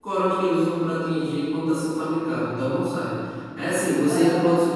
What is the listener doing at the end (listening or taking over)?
listening